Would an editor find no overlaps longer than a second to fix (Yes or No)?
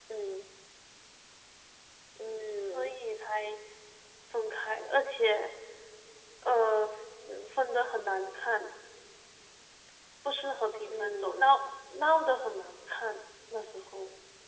Yes